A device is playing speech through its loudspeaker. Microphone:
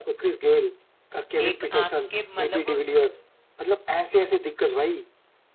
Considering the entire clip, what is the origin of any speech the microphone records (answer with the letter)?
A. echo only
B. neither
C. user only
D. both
D